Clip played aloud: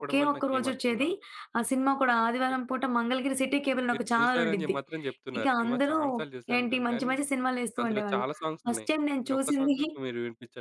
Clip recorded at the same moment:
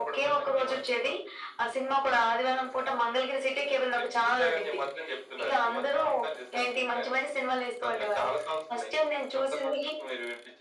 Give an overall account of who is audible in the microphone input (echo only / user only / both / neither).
echo only